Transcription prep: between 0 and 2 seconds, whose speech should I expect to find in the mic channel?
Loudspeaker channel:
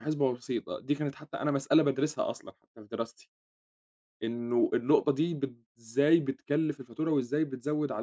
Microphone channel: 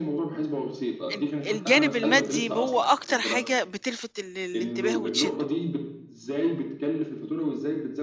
both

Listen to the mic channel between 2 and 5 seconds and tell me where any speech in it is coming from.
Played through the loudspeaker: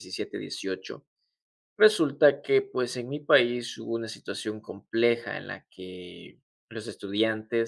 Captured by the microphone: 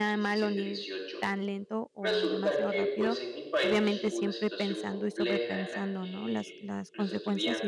both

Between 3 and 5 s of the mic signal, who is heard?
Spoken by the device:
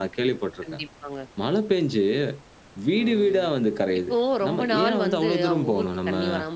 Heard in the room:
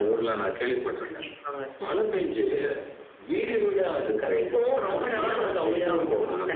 echo only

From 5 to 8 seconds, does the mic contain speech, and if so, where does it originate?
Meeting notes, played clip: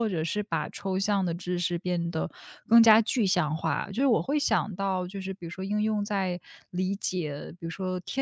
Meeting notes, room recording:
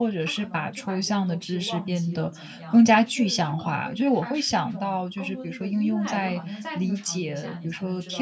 both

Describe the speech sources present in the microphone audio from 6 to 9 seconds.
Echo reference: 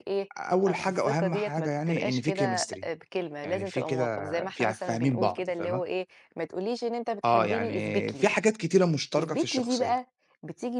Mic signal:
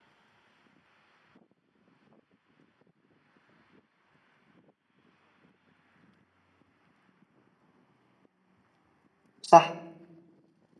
neither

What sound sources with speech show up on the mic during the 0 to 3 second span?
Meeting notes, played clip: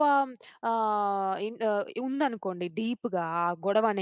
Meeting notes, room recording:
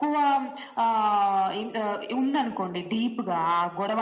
echo only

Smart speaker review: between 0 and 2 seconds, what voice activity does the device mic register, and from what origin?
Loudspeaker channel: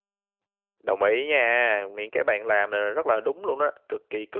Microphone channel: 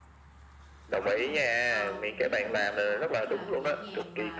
both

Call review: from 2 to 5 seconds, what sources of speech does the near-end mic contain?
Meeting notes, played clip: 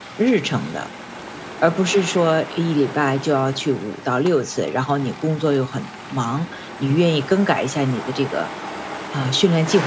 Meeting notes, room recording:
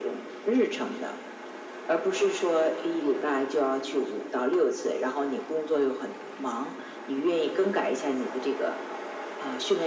echo only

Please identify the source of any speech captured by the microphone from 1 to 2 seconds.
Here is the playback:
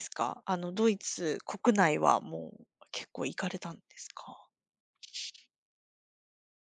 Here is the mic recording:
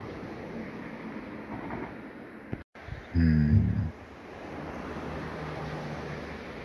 neither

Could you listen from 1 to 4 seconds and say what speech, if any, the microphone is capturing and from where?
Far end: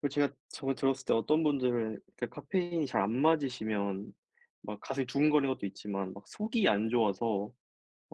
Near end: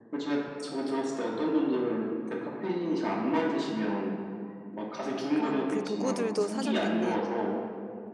echo only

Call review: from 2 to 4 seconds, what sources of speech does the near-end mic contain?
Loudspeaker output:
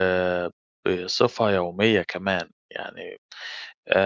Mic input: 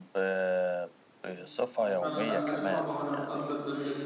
both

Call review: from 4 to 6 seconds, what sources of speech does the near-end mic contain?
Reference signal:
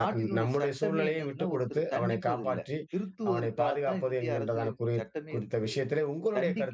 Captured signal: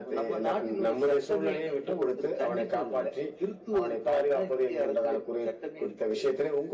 echo only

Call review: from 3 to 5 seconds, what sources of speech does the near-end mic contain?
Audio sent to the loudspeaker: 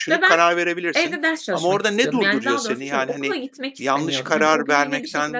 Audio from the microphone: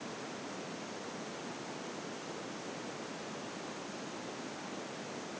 neither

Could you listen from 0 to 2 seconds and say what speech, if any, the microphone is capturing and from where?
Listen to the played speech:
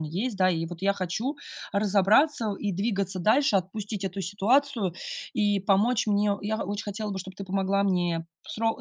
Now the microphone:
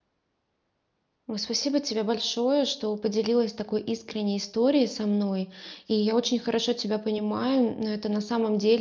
user only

